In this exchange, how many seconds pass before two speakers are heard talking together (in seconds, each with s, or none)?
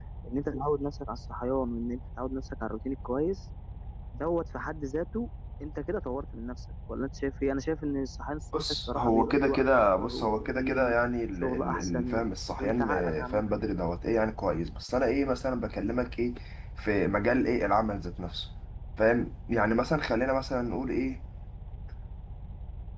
8.5 s